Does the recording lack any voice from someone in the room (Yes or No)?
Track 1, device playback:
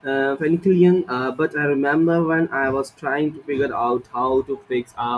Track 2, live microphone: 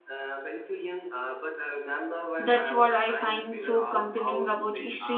No